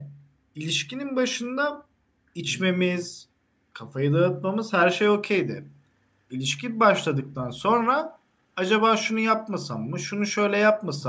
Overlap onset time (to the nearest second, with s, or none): none